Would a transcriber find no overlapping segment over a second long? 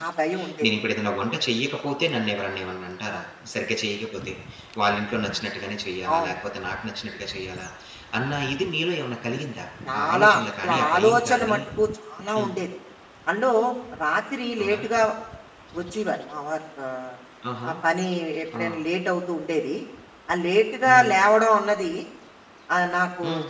No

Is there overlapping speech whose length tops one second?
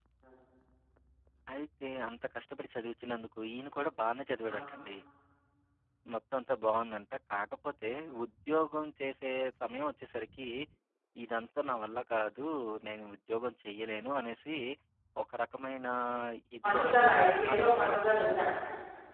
Yes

